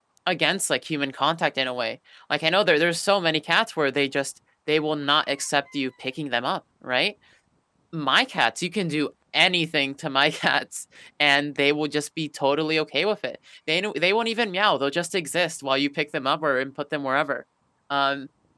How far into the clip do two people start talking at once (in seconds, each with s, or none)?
none